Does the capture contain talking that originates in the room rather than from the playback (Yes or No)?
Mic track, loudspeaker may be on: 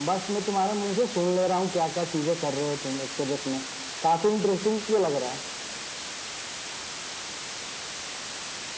No